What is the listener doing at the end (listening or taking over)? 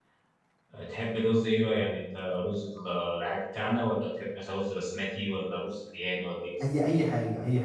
taking over